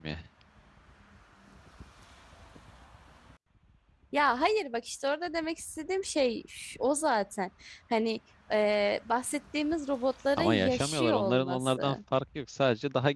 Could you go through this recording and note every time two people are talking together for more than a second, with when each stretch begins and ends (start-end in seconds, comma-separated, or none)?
10.4-12.0